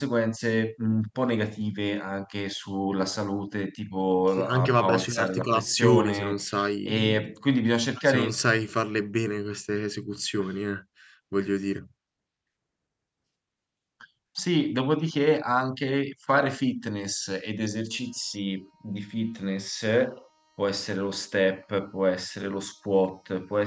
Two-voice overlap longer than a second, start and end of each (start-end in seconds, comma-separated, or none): 4.4-6.4